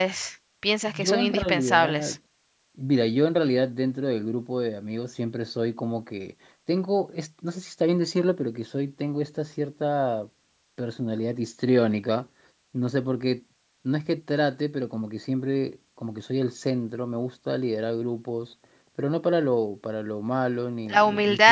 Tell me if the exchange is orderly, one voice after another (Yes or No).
No